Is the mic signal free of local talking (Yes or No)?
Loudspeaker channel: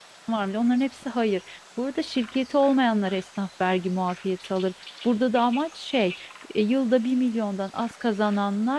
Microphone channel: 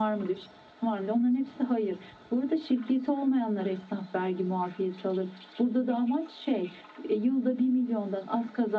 Yes